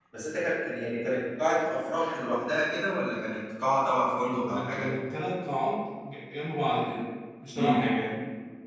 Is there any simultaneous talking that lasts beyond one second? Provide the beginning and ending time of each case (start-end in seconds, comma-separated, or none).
none